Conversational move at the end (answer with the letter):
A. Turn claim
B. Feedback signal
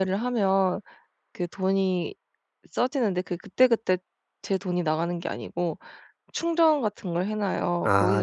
B